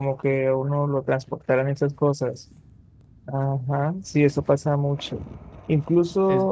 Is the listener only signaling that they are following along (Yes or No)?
Yes